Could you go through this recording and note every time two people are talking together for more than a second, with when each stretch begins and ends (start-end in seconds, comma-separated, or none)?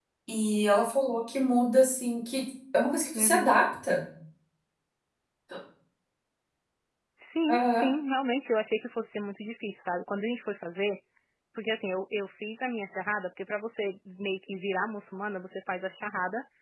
none